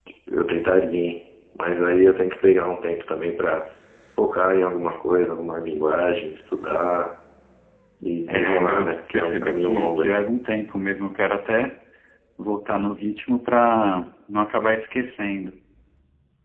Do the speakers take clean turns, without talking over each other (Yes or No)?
No